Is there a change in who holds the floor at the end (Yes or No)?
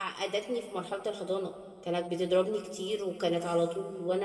No